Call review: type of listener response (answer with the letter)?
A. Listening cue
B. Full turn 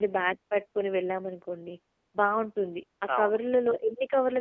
A